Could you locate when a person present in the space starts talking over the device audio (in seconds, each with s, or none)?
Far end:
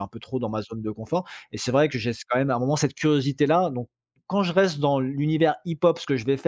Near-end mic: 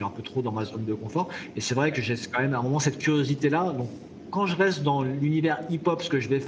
none